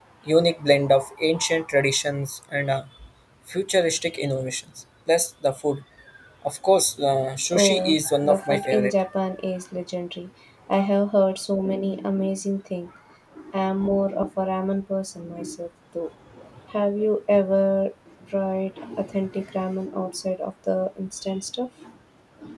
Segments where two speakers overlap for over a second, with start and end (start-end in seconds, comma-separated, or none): 7.5-8.9